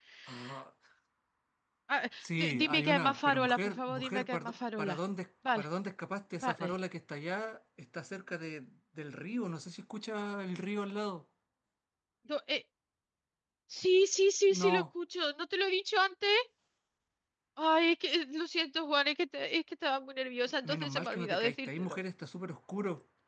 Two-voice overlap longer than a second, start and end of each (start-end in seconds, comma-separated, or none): 2.2-5.0, 20.7-22.0